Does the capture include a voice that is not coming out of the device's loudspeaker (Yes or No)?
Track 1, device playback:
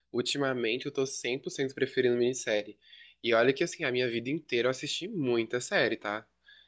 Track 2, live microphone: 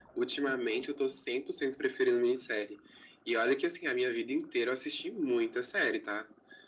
No